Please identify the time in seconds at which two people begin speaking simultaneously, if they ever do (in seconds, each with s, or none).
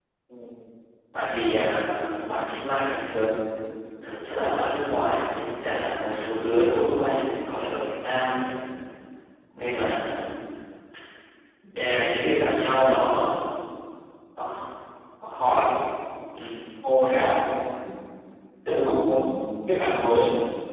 none